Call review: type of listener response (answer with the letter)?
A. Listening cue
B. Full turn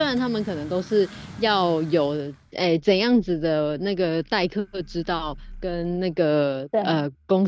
A